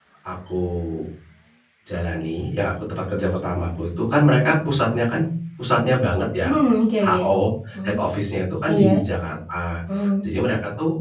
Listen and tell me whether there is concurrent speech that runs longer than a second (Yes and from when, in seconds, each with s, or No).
No